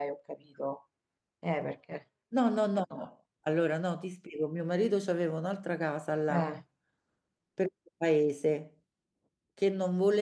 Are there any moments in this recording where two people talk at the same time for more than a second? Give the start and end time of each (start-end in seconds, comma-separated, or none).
none